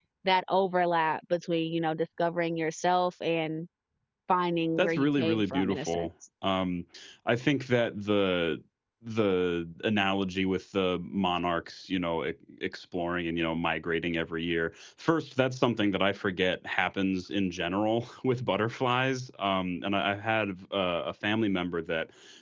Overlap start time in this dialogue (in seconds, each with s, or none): 4.8 s